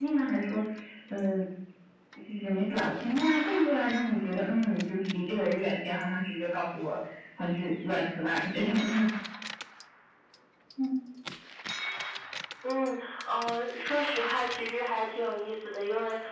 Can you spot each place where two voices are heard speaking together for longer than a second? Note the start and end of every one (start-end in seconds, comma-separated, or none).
none